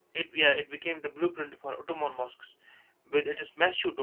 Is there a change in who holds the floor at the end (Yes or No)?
No